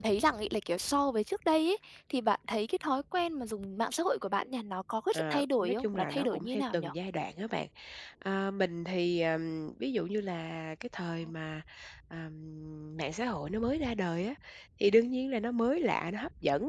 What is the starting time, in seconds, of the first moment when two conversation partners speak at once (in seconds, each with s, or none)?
5.1 s